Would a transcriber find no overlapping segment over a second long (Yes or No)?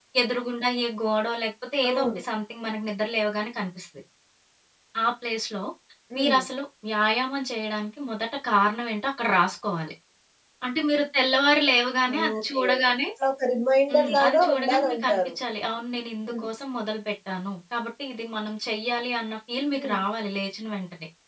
No